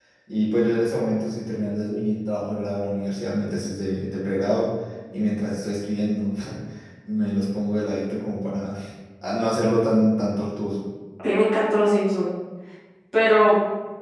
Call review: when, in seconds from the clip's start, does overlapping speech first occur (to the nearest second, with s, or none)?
none